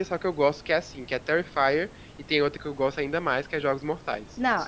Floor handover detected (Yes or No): Yes